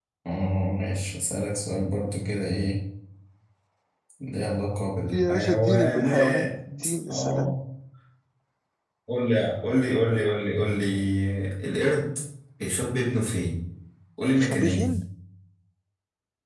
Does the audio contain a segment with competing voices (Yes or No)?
Yes